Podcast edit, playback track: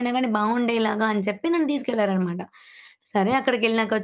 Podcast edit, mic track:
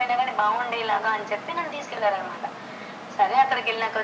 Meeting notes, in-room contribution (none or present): none